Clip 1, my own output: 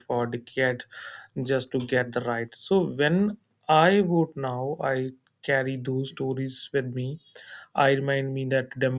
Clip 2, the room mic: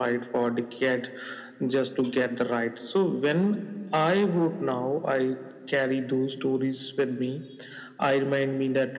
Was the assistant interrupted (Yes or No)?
No